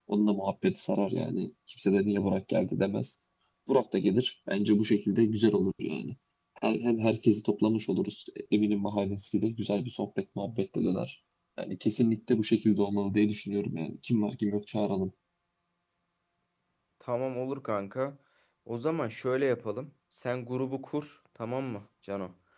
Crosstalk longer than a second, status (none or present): none